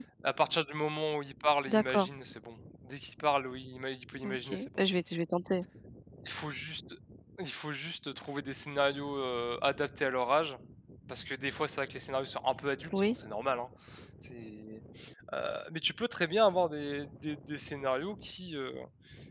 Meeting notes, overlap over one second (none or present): none